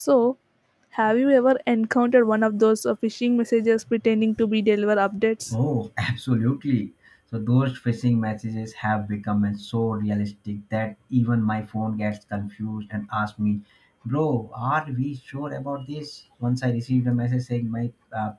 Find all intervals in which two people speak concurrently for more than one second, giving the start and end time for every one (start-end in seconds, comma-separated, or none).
none